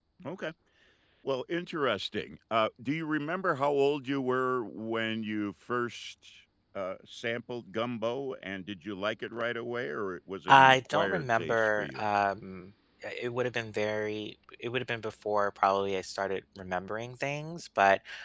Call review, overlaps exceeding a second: present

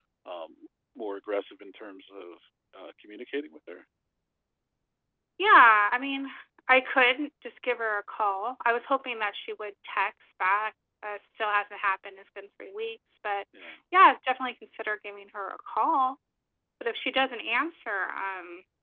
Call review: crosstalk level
none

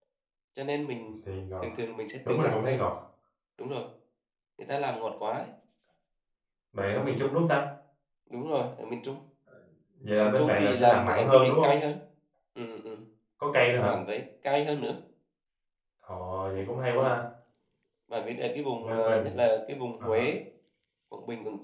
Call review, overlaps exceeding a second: present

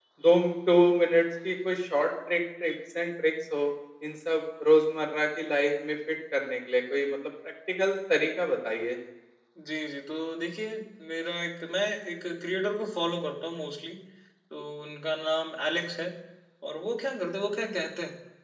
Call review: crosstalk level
none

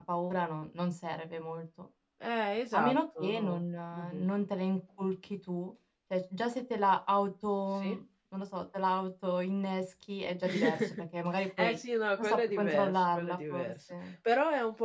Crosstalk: present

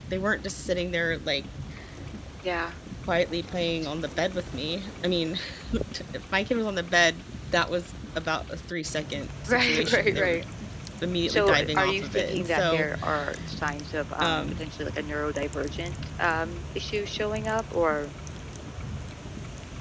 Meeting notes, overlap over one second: present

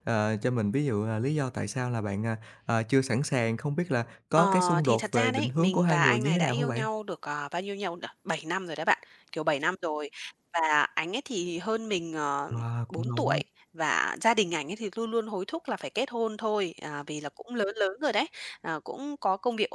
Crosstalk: present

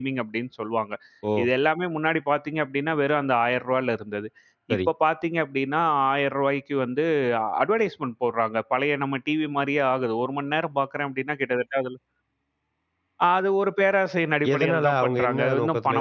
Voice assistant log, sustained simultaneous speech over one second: present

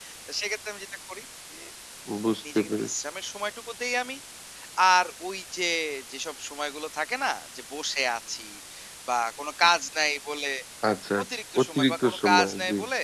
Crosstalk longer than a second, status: present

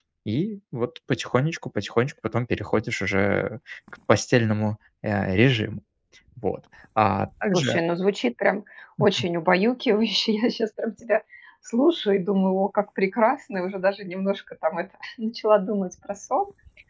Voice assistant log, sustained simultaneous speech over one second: none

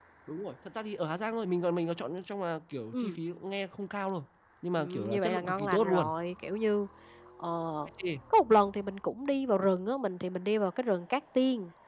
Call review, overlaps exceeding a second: present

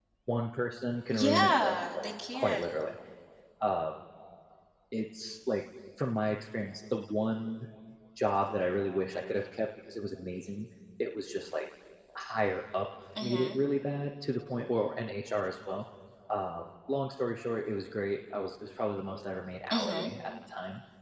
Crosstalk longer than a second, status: present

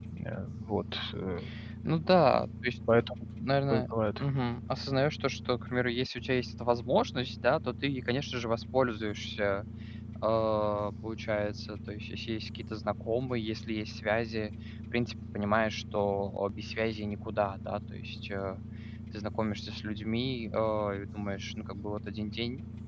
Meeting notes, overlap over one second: none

